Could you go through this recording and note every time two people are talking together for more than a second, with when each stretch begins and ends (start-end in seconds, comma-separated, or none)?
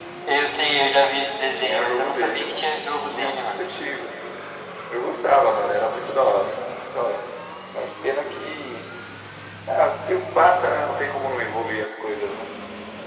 1.5-3.7